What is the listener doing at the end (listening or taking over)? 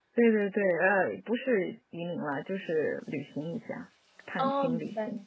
taking over